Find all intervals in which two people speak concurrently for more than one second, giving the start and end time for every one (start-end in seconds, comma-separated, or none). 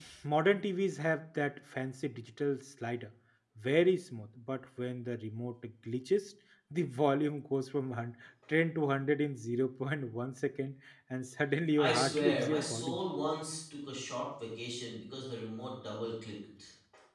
11.8-13.0